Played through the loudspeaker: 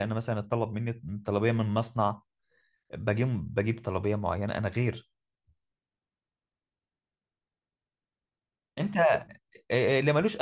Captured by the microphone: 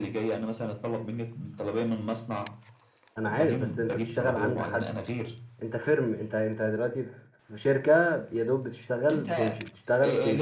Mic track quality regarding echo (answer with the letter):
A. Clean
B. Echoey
B